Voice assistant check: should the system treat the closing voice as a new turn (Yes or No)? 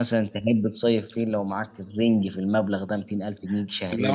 Yes